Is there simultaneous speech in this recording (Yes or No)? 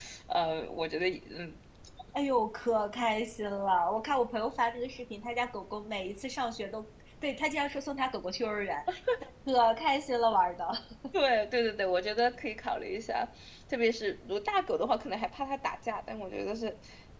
No